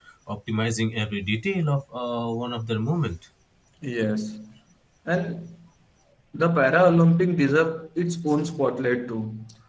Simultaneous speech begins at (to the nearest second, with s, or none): none